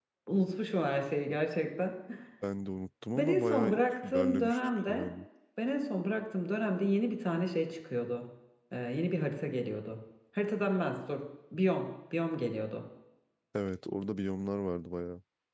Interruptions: present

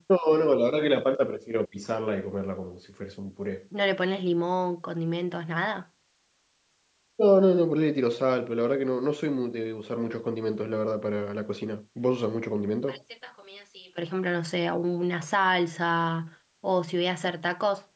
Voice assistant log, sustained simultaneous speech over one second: none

